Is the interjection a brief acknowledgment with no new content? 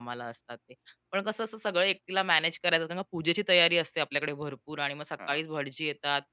Yes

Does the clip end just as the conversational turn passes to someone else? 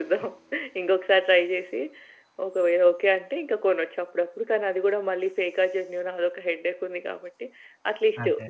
No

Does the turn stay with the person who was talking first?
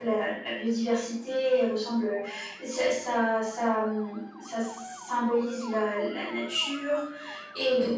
Yes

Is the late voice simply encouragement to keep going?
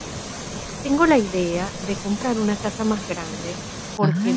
Yes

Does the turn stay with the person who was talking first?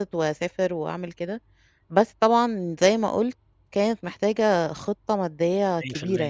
No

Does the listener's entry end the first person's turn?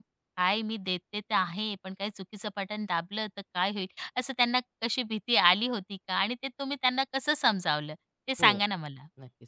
Yes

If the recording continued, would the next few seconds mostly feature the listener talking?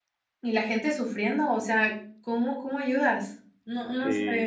Yes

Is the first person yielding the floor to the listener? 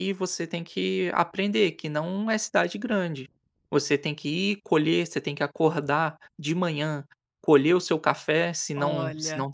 No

